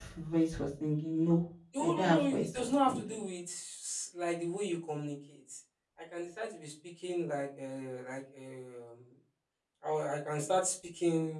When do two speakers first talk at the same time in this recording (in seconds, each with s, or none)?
1.7 s